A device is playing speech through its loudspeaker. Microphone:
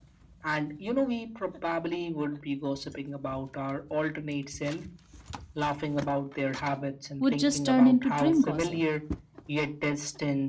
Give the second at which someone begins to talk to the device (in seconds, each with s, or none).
7.2 s